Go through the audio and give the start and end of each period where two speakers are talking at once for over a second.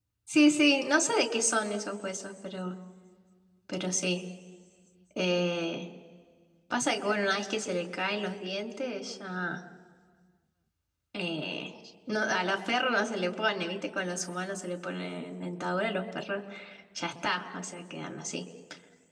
none

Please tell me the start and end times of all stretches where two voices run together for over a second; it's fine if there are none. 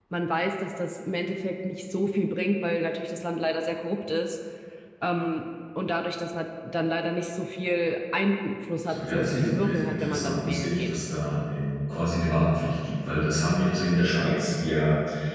8.9-11.0

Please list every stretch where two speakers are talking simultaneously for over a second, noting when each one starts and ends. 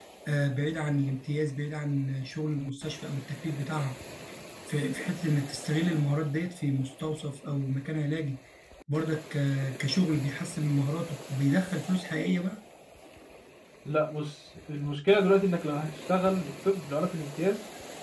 none

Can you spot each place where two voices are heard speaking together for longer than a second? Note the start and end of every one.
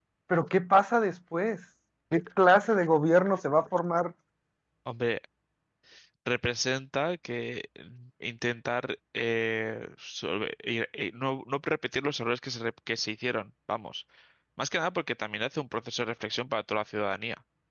none

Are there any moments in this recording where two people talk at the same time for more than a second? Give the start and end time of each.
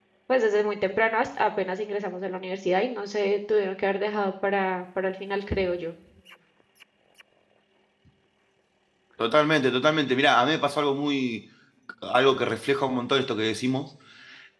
none

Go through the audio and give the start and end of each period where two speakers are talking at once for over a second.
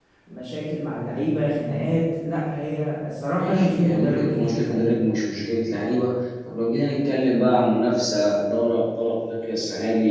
3.4-4.9

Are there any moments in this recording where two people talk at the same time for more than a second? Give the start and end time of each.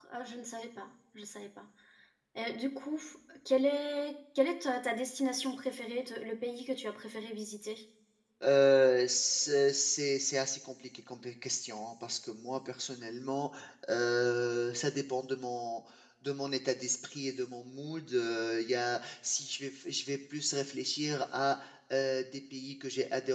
none

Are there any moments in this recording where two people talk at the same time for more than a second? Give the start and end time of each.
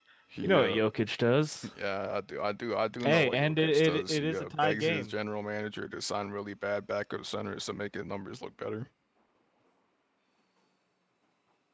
3.0-5.1

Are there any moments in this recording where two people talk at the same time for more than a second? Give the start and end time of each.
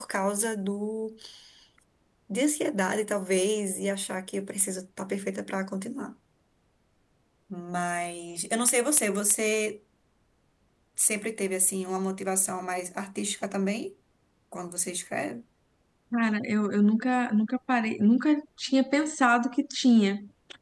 none

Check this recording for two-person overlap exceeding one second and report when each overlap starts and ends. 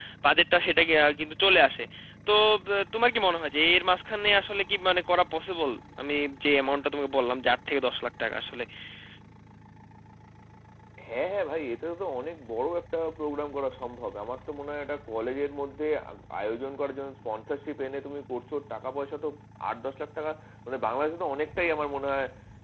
none

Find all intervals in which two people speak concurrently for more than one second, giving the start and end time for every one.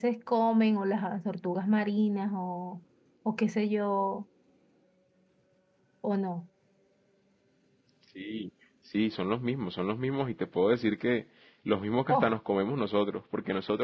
none

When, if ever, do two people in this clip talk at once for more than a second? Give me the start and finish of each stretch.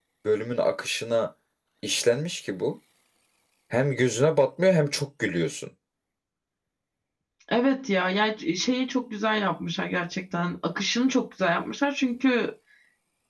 none

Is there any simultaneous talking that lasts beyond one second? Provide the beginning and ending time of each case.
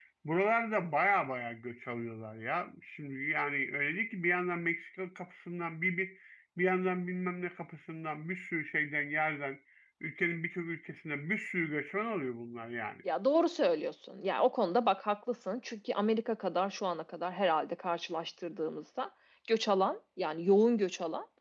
none

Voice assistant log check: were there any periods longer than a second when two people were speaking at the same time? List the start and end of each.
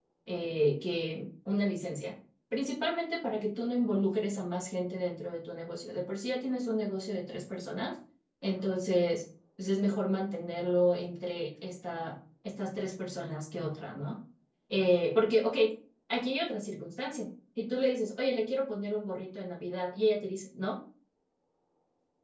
none

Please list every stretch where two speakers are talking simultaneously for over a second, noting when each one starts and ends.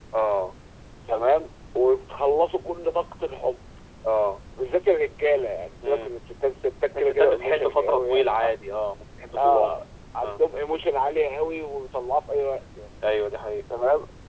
7.0-8.6

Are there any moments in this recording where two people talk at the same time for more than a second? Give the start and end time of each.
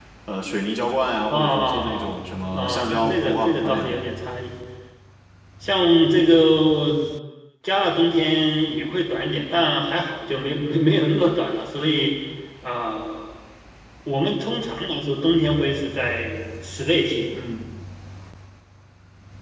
1.3-4.0

